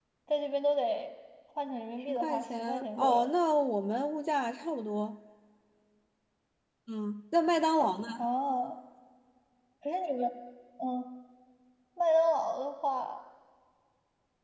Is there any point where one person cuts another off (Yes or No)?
Yes